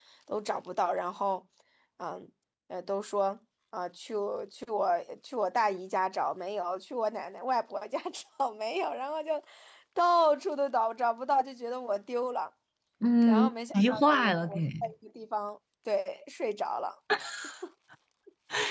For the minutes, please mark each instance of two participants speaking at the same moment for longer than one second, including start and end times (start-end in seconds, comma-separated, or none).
13.3-14.9